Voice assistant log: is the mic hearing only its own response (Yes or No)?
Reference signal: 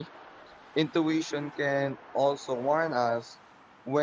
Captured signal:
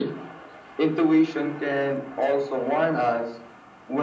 Yes